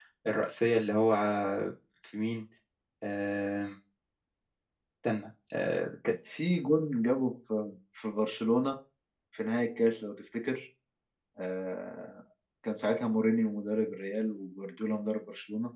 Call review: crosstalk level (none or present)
none